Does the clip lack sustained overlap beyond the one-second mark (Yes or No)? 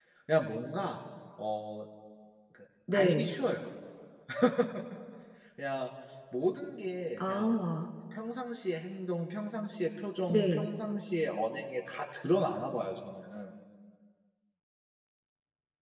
Yes